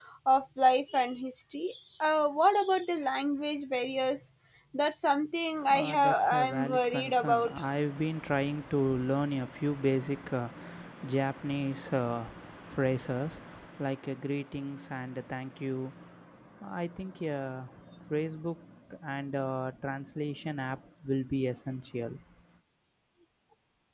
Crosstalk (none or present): present